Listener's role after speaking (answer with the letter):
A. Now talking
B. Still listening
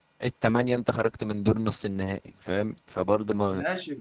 A